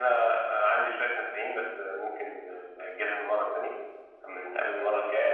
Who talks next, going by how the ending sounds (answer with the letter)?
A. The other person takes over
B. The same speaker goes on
B